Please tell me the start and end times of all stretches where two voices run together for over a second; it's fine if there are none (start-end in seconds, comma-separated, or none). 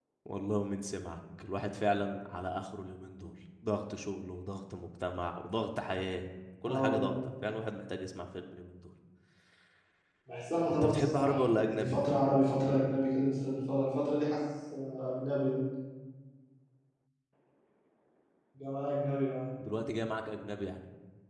10.7-12.0